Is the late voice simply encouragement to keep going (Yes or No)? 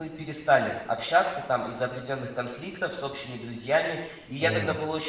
Yes